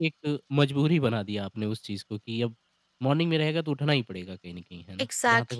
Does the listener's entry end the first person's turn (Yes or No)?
Yes